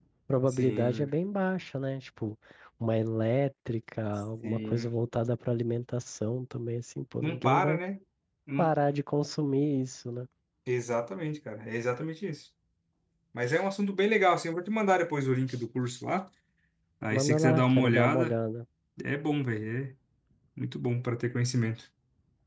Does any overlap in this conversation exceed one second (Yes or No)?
Yes